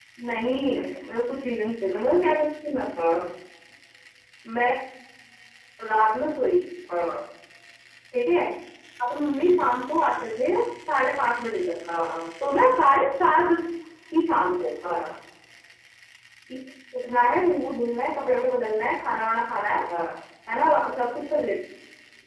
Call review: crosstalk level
none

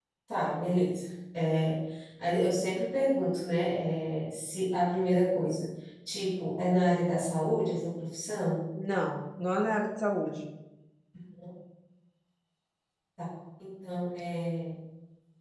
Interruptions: none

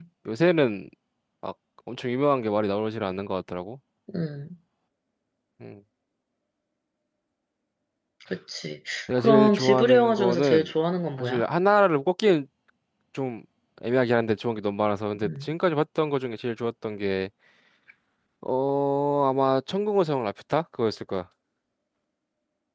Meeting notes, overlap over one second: present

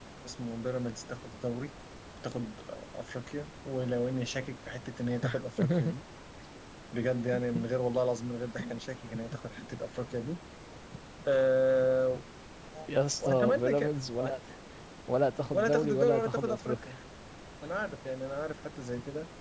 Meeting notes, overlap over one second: present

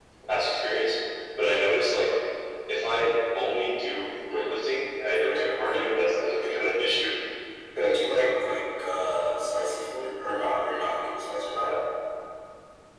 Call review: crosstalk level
present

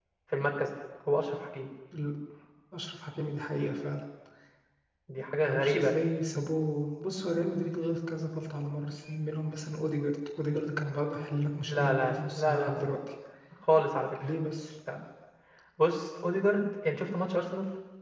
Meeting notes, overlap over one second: present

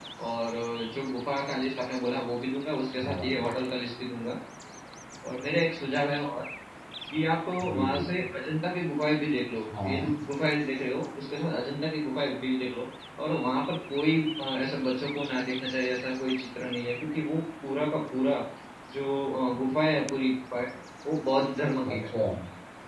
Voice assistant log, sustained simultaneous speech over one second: none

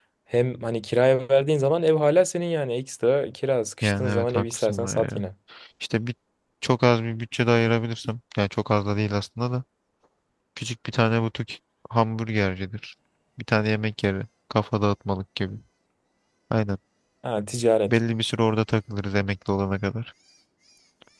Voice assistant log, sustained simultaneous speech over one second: present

